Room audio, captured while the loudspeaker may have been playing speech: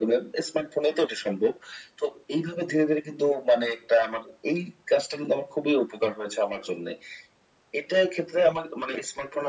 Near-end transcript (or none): none